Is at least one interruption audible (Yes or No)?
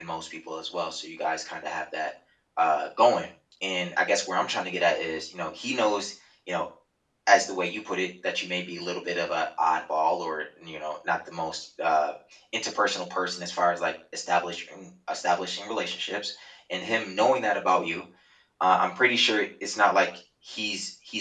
No